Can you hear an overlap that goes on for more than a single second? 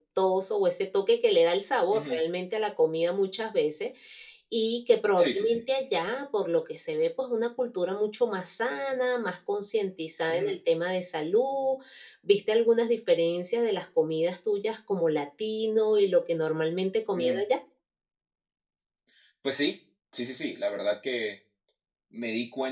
No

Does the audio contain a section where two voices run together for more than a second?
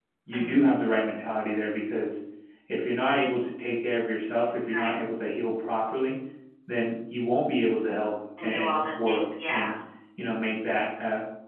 Yes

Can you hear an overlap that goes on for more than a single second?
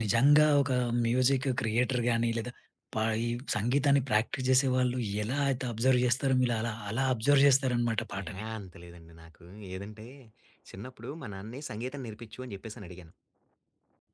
No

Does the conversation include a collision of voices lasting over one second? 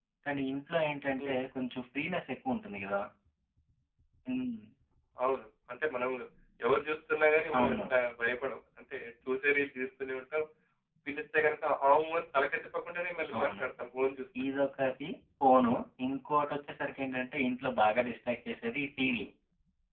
No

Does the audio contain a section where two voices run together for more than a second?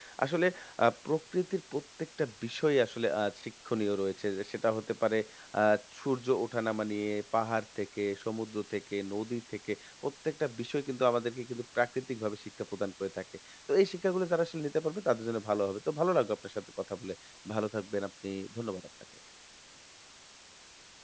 No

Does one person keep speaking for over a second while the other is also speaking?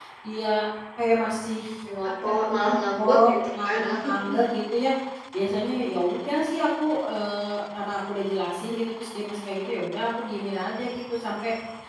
Yes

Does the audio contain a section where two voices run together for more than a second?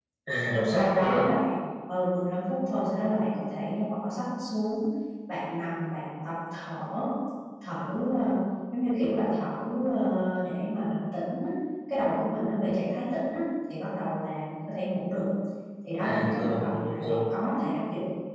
Yes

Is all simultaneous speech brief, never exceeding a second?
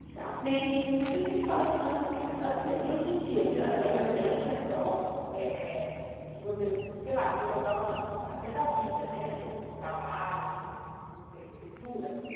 No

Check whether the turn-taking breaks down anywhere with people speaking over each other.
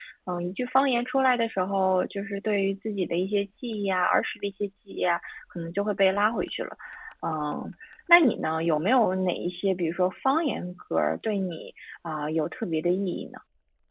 No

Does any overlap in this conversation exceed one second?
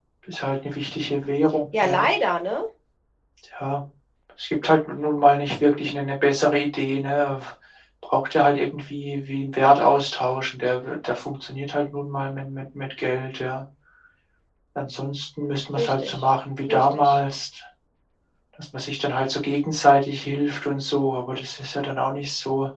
Yes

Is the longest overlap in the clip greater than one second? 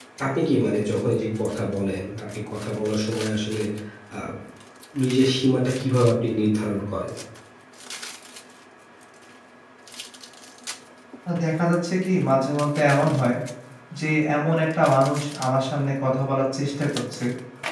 No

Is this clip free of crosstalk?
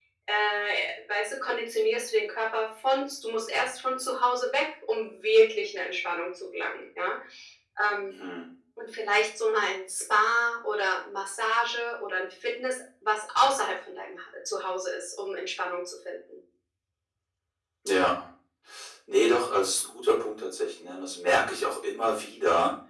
Yes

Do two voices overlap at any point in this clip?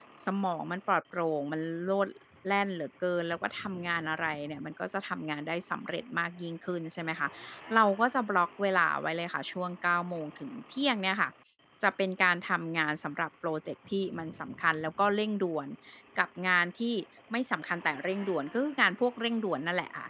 No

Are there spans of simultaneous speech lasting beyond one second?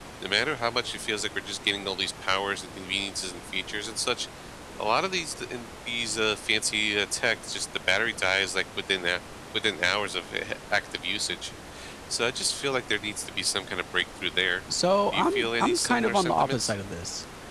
Yes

